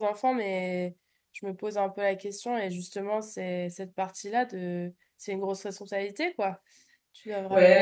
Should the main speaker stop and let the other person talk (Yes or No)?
Yes